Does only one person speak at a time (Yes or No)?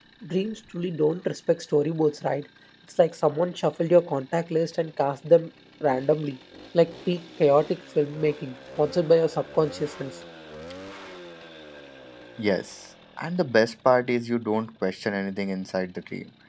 Yes